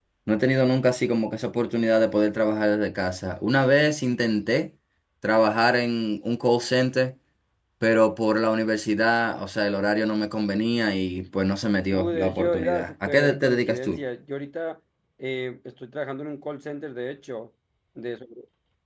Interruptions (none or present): present